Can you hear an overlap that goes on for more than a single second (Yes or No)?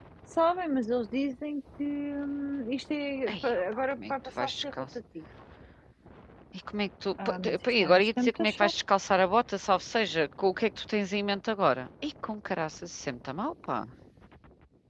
Yes